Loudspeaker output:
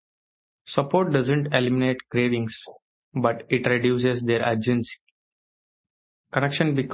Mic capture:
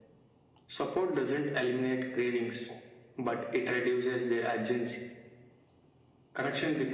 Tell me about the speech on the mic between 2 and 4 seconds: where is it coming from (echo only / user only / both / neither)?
echo only